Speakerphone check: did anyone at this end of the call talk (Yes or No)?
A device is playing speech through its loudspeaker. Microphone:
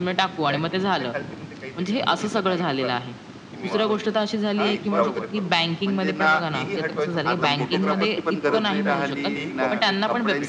Yes